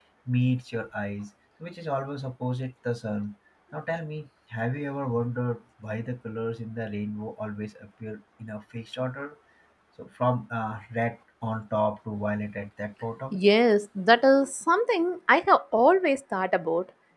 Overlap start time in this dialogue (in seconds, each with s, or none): none